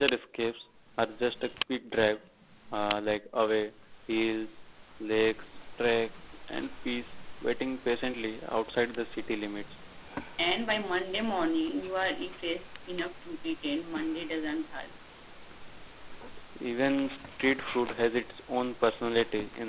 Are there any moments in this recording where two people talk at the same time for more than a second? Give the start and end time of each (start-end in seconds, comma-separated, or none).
none